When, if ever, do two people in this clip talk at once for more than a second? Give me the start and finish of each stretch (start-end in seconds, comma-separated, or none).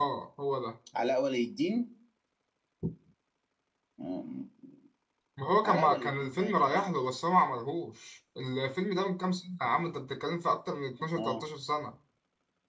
5.6-6.9